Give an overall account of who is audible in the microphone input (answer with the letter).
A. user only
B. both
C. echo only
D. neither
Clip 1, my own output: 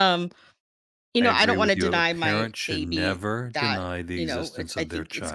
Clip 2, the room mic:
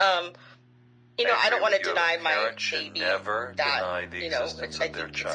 C